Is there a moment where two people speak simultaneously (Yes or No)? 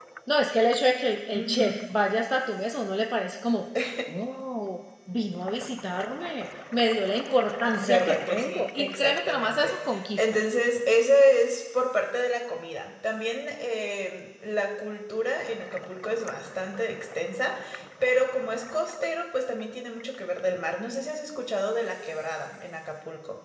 Yes